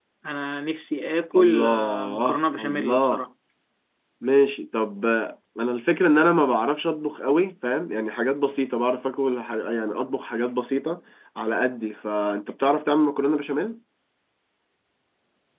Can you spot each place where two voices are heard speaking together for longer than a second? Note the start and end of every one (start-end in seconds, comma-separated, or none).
1.4-3.2